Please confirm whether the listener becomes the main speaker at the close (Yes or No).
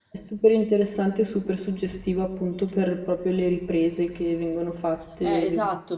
Yes